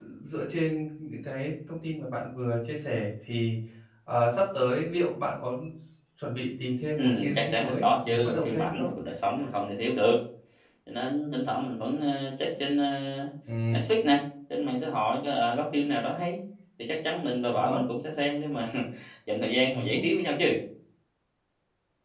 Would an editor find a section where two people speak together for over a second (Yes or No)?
Yes